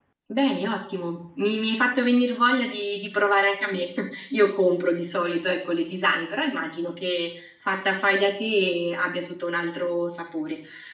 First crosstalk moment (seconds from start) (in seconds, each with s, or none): none